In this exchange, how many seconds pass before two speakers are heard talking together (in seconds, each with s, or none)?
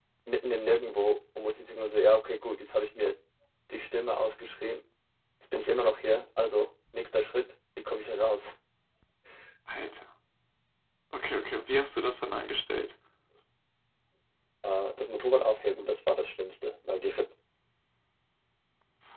none